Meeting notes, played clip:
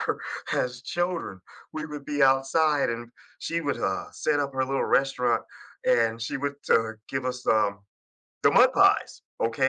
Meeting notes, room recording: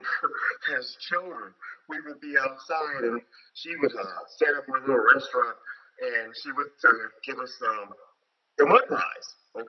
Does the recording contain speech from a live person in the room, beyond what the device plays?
No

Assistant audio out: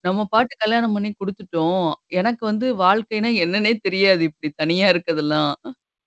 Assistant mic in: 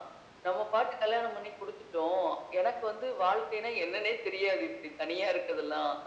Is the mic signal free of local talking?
Yes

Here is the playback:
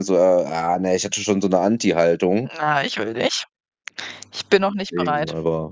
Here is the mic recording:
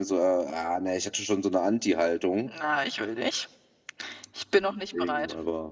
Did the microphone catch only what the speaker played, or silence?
Yes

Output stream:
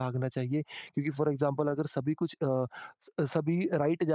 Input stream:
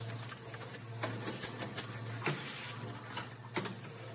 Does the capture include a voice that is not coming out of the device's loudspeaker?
No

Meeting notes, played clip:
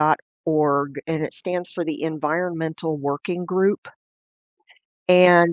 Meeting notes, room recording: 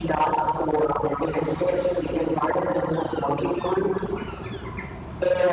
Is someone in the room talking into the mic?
No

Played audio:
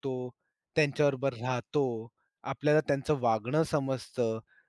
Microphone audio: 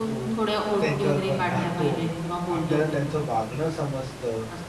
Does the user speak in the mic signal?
Yes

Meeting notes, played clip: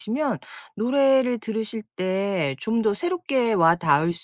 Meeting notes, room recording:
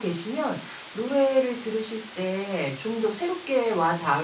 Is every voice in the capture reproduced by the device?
Yes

